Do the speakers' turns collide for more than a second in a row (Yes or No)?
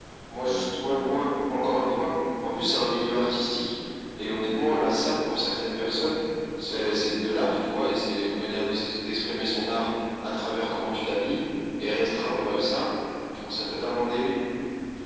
Yes